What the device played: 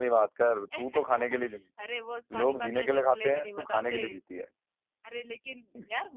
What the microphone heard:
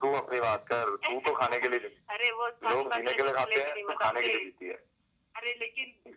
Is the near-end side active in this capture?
No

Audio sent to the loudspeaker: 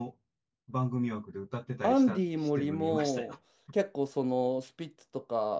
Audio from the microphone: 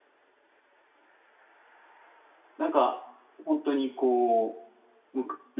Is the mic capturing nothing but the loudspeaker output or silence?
No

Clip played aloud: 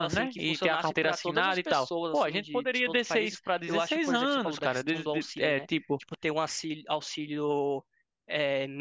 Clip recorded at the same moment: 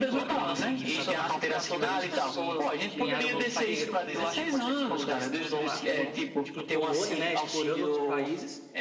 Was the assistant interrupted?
Yes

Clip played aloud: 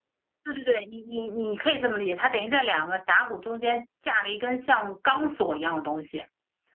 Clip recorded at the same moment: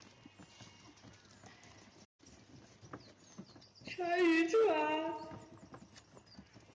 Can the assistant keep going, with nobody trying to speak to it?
No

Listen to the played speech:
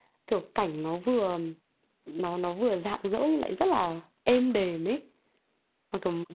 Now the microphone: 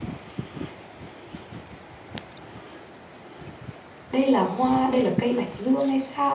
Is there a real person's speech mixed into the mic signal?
Yes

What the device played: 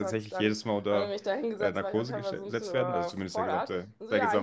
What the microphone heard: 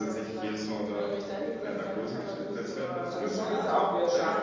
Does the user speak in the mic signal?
Yes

